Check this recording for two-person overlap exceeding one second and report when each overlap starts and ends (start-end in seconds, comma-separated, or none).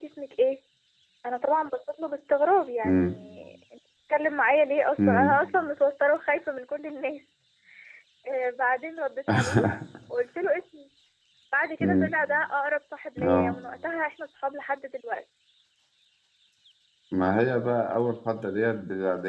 none